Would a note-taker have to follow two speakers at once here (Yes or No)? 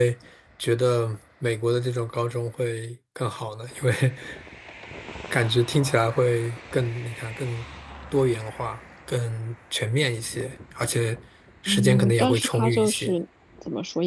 Yes